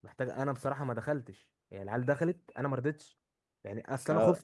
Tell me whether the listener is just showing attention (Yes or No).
Yes